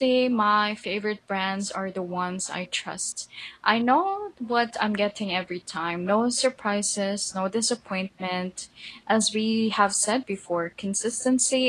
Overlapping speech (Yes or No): No